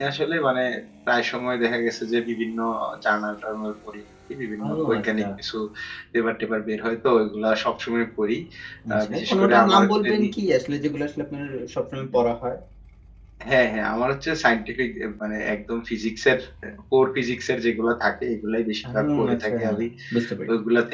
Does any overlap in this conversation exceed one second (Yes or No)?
Yes